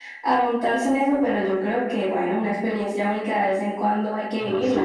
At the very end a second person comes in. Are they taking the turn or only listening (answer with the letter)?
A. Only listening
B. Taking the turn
B